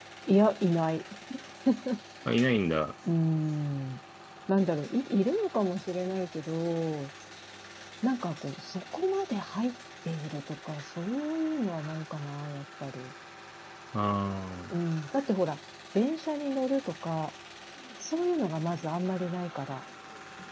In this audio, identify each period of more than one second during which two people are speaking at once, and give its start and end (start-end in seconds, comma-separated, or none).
none